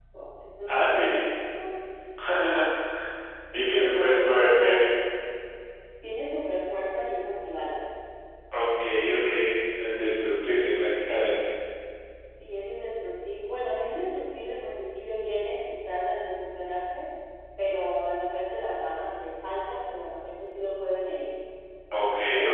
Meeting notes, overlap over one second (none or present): present